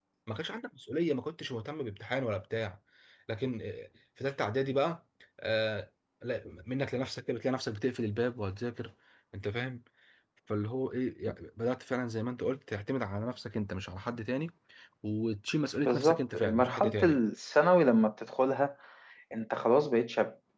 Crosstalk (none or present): present